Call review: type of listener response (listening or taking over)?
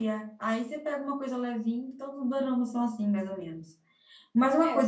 listening